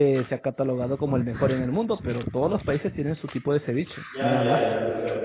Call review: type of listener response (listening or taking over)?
taking over